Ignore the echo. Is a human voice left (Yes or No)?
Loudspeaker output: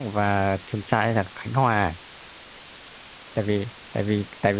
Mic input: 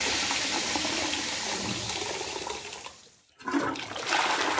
No